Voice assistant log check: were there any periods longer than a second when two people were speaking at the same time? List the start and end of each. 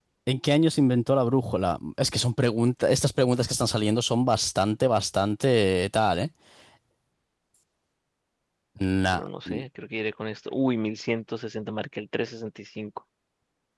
none

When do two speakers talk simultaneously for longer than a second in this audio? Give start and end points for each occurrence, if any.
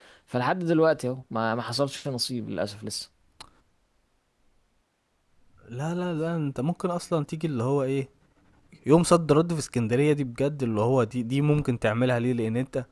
none

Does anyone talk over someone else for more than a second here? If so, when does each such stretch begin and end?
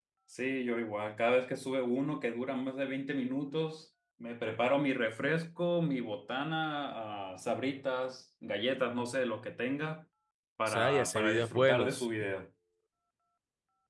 10.7-12.0

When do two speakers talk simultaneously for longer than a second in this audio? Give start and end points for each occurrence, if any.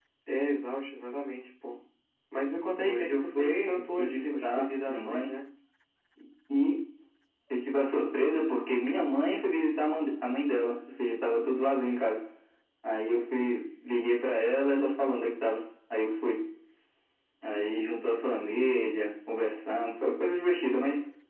2.8-5.3

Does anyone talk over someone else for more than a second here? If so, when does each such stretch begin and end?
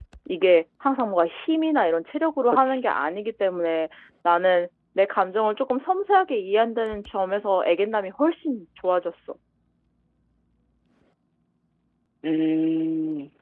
none

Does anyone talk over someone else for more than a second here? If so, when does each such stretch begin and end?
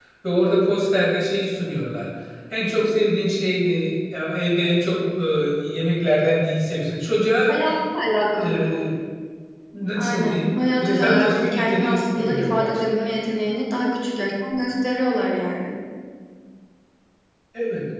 10.0-12.8

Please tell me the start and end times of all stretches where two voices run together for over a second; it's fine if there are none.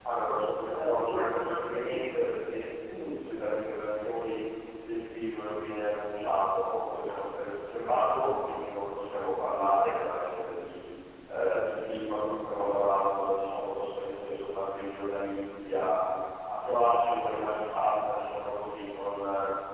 0.7-2.2

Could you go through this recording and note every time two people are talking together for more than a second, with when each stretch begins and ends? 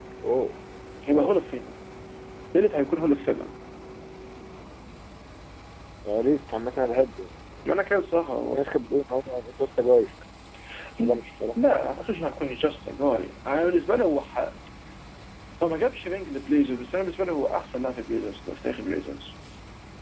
none

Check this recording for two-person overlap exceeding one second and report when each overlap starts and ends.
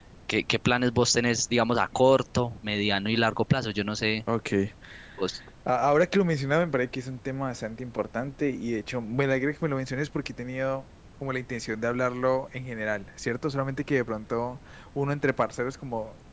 none

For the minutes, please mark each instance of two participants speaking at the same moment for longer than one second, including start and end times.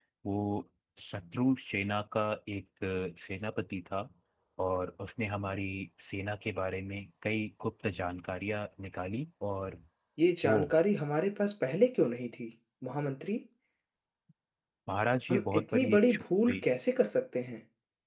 15.3-16.6

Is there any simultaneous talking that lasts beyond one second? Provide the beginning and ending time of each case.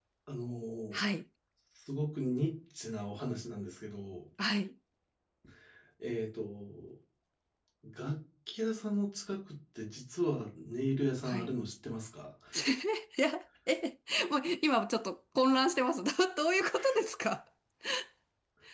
none

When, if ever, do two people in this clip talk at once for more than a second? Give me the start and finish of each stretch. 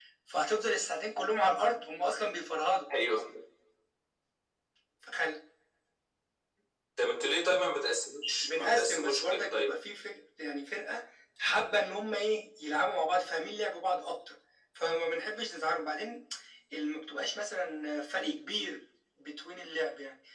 8.4-9.7

